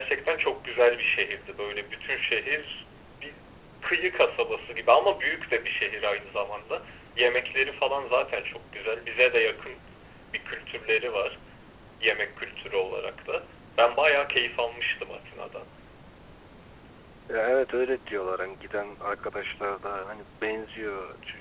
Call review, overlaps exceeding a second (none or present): none